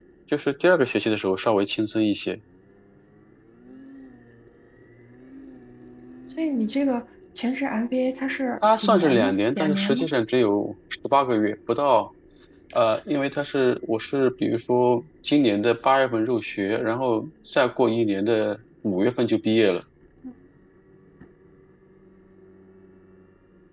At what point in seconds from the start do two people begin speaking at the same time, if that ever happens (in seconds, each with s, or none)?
8.6 s